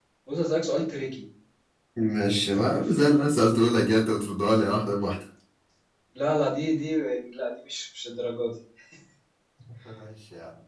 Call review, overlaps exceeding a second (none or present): present